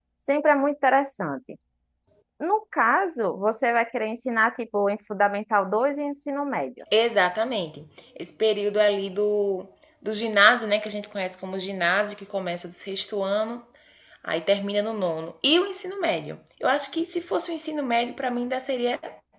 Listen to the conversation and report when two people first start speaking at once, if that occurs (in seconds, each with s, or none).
none